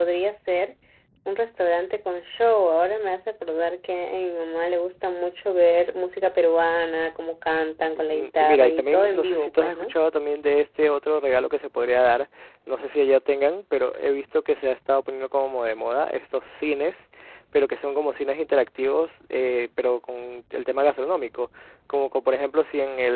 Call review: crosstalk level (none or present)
present